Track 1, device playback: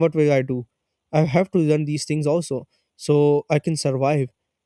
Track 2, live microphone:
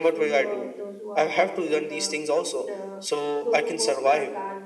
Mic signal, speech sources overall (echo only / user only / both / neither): both